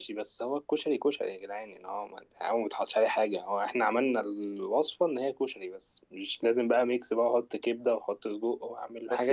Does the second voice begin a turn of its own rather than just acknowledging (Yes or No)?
Yes